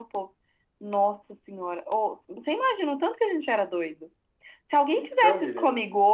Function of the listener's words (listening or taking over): listening